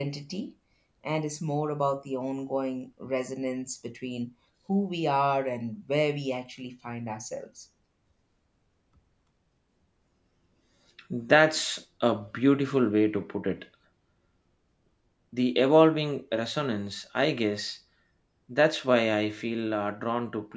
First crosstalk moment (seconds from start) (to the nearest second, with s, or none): none